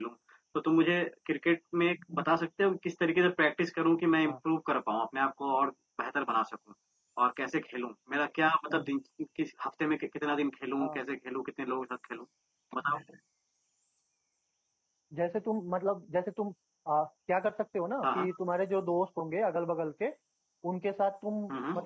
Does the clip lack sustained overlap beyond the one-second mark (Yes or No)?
Yes